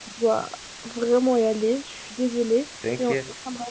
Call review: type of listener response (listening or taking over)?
listening